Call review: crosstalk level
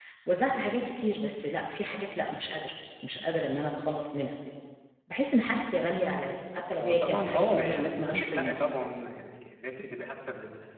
present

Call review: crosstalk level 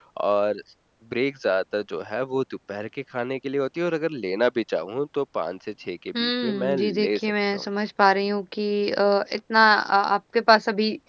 present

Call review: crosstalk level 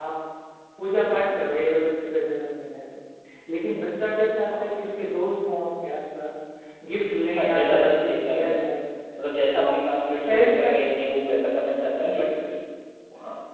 present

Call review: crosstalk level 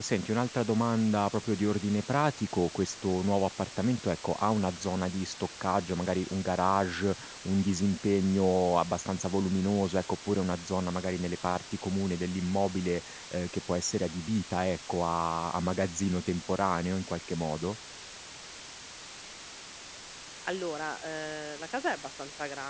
none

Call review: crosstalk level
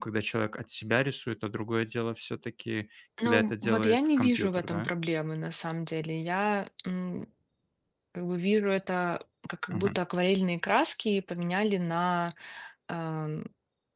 present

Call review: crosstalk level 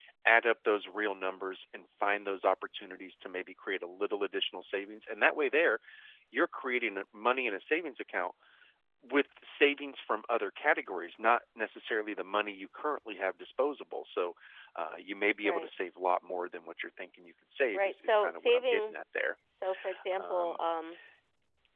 present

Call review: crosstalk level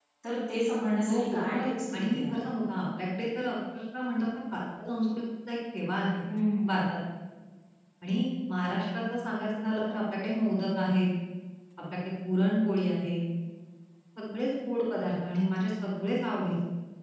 present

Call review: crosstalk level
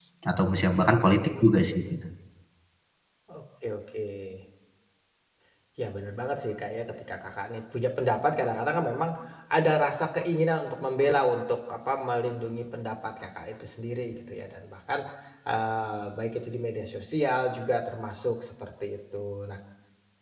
none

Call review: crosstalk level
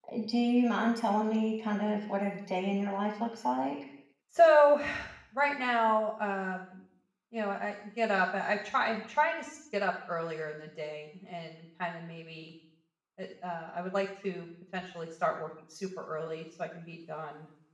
none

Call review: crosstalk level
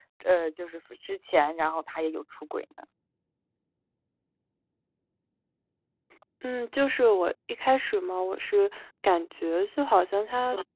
none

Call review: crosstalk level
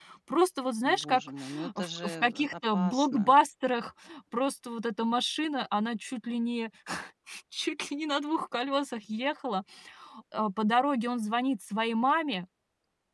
present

